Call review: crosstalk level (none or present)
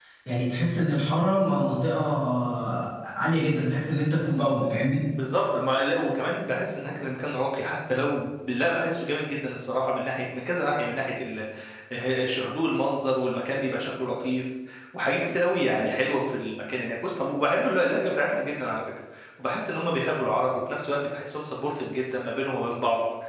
none